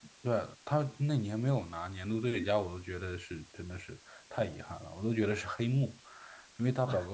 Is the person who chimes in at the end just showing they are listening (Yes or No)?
Yes